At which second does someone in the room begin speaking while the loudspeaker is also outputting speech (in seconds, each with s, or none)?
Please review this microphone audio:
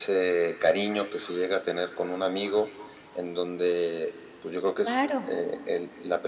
4.8 s